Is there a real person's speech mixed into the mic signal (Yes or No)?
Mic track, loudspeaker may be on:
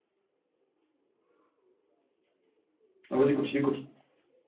Yes